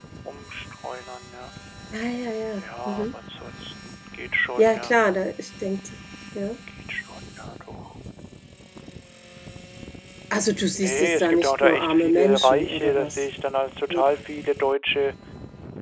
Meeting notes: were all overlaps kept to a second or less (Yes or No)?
No